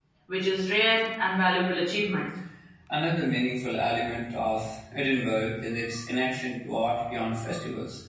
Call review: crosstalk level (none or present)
none